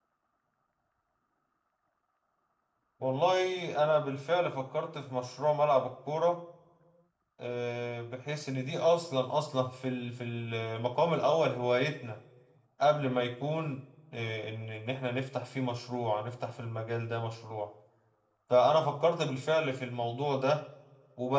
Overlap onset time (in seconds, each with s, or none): none